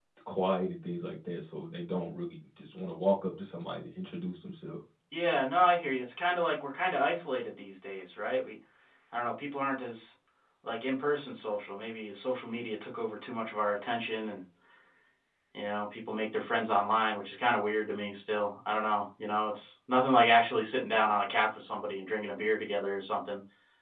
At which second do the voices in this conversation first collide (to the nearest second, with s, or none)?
none